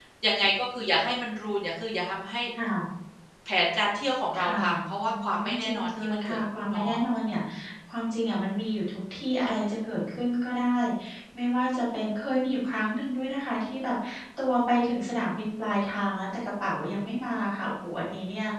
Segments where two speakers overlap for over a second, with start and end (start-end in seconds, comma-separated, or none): 5.0-7.4